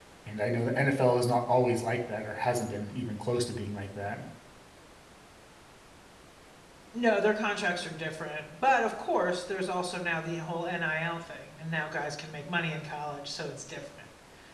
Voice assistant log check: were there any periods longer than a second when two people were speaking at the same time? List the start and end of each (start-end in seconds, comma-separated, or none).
none